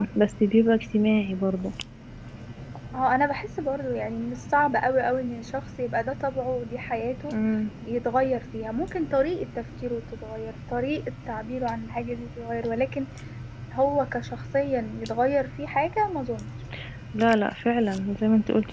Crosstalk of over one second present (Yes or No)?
No